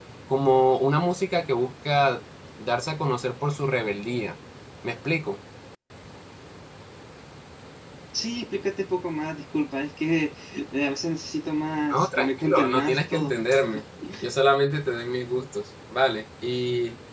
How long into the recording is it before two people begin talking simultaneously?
11.9 s

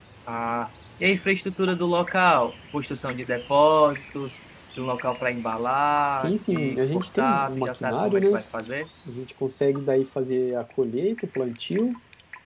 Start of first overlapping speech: 6.1 s

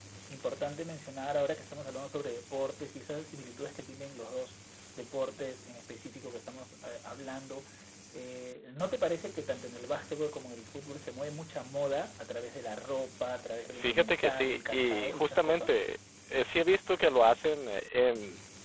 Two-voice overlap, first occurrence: 13.6 s

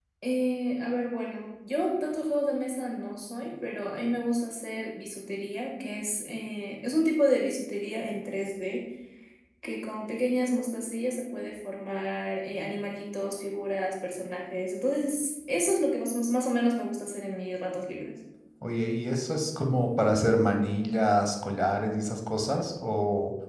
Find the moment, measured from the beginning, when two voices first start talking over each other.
none

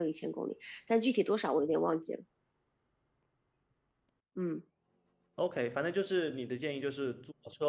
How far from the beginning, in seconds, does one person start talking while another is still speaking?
none

